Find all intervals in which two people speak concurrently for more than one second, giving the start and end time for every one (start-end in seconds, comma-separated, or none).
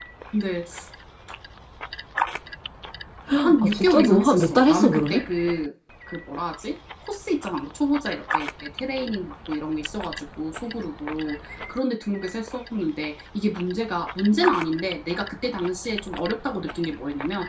3.4-5.2